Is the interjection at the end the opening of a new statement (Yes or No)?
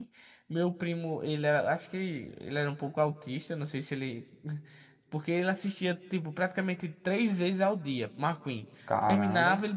No